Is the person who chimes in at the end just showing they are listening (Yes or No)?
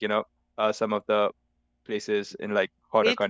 No